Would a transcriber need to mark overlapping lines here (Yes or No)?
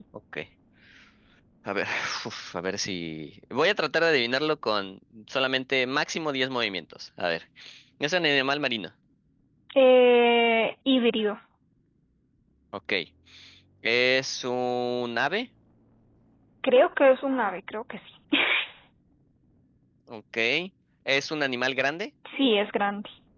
No